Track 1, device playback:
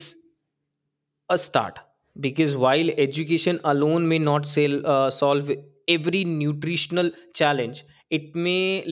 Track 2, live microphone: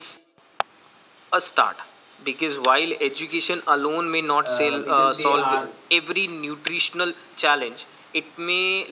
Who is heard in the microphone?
both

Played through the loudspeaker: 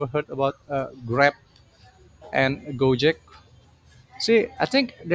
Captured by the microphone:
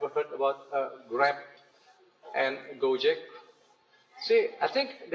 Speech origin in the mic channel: echo only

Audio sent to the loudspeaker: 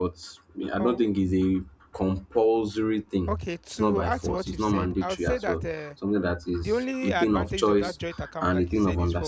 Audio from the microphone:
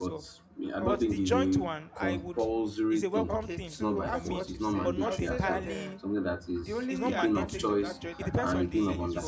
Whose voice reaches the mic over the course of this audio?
both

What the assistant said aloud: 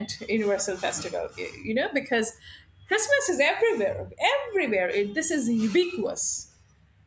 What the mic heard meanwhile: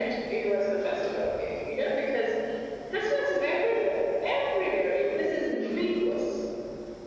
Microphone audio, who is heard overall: echo only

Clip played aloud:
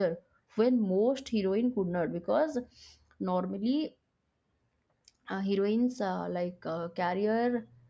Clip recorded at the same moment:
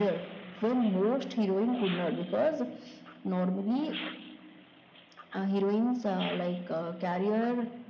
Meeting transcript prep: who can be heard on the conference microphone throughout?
echo only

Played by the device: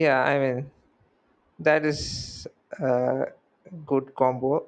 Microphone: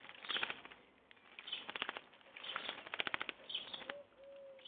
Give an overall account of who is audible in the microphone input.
neither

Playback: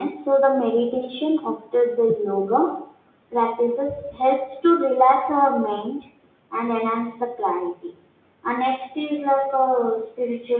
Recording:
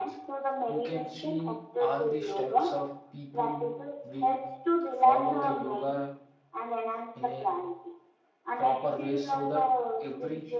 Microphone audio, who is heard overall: both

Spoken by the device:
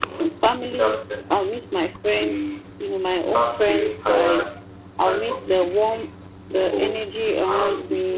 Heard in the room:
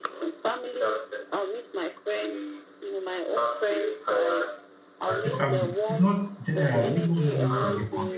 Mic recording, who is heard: both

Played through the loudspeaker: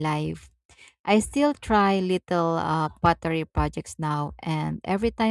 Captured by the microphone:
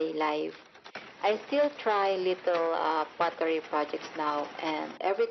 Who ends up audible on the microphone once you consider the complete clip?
echo only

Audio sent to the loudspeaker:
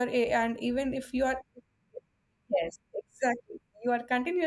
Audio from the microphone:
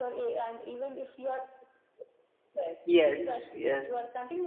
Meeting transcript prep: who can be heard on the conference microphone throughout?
both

